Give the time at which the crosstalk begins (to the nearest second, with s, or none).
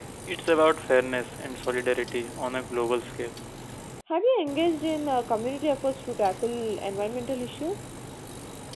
none